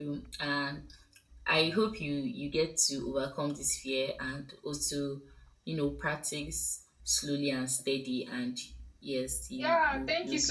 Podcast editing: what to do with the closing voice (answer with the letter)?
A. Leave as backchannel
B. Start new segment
B